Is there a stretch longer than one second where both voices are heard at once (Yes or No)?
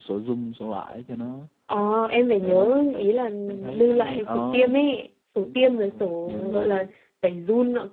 Yes